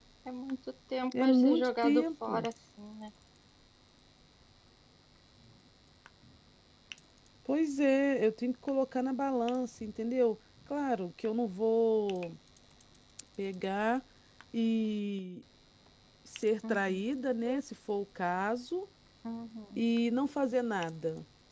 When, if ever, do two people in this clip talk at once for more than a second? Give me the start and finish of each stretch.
1.2-2.5

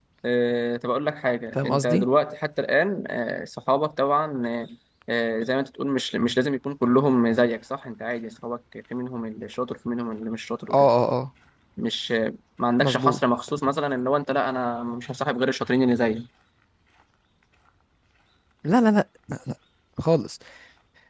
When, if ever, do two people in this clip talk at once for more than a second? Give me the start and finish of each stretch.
none

